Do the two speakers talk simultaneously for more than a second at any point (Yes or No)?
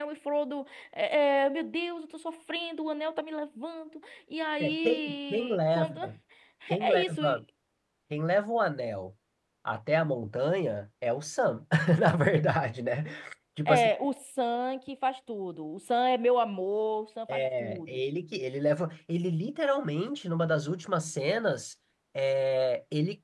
Yes